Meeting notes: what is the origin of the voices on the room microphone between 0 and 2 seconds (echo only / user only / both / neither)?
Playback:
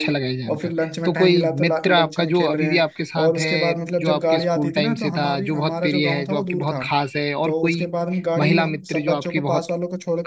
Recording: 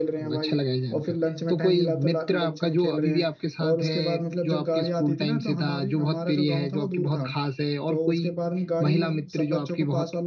echo only